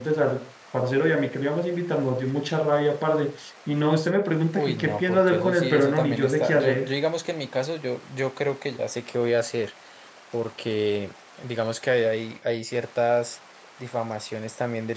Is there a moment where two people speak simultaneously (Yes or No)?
Yes